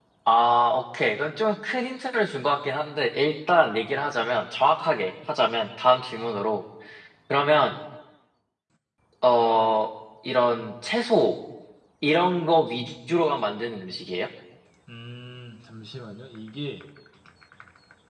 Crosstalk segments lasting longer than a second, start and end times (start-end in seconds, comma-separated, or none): none